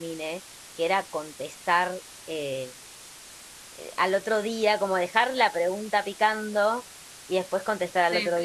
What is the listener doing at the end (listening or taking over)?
listening